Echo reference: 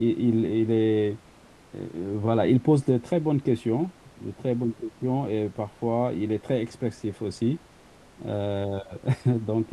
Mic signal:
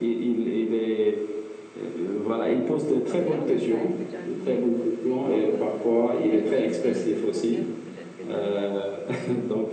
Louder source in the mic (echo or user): echo